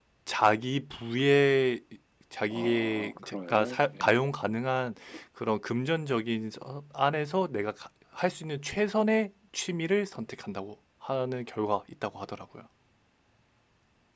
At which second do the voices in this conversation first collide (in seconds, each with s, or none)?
2.5 s